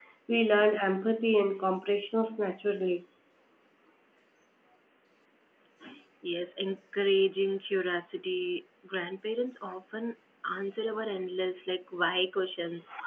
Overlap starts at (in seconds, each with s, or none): none